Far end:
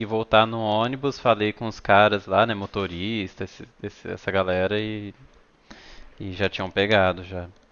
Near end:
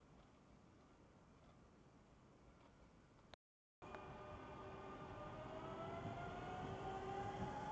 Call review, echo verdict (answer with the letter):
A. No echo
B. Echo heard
A